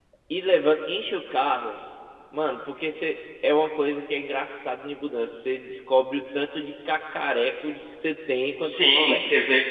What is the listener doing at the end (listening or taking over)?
taking over